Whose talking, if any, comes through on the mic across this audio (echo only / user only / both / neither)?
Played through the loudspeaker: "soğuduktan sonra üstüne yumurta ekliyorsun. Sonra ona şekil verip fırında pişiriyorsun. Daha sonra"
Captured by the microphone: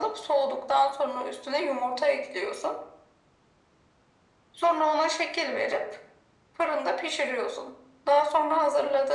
echo only